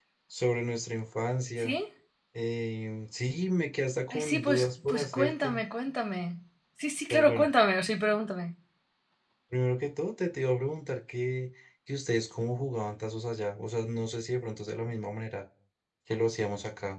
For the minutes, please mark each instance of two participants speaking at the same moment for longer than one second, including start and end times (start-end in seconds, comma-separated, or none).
4.1-5.6